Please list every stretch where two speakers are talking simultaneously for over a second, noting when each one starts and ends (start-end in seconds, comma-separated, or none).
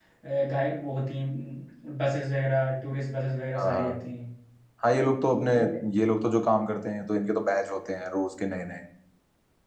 none